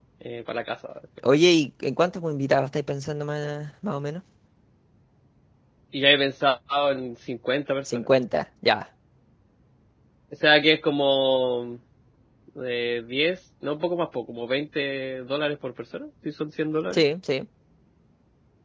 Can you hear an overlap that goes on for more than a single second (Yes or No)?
No